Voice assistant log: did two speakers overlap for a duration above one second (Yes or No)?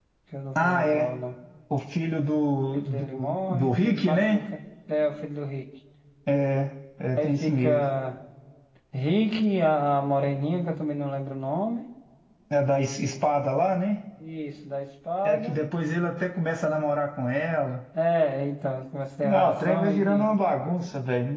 Yes